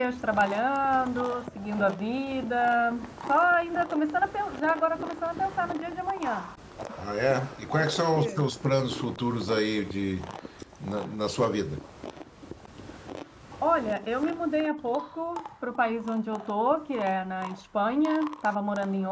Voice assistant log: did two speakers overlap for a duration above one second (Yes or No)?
No